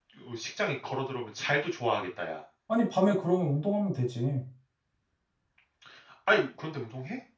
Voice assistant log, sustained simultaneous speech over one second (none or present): none